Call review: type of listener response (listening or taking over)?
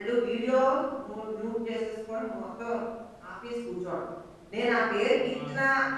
listening